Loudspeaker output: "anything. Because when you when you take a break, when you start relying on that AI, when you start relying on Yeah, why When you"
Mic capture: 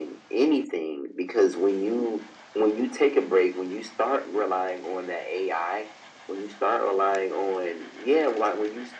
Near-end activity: none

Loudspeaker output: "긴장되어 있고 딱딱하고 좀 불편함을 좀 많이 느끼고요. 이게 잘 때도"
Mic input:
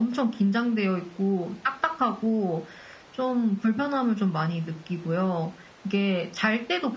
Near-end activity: none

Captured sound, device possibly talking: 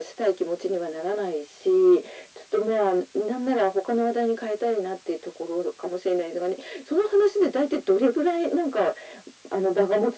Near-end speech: none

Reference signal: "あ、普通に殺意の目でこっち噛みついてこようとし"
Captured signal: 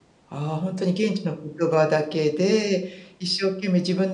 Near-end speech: present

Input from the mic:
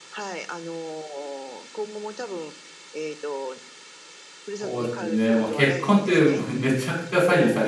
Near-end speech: present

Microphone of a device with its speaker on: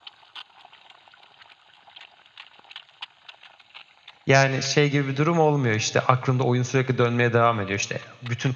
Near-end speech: present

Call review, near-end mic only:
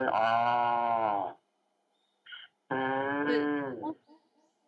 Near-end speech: present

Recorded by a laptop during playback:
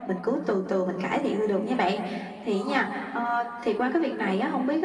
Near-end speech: present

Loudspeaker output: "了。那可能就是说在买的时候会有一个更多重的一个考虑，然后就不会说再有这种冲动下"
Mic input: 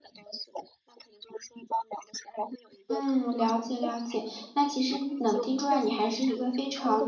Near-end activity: present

